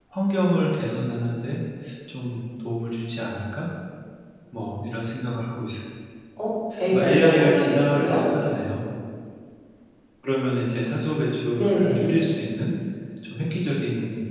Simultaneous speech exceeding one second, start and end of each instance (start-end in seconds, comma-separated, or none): 6.9-8.3